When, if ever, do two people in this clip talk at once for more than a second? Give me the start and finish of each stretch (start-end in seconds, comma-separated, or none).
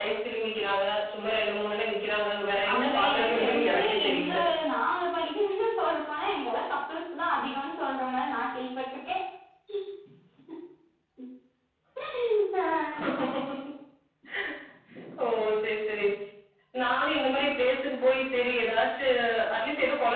2.7-4.3